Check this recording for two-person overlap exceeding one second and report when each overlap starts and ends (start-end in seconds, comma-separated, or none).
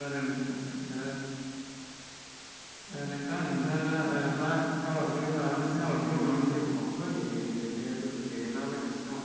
5.0-6.6